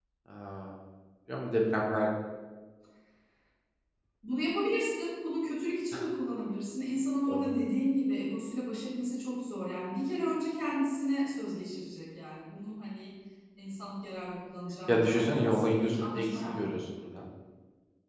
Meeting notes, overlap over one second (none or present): present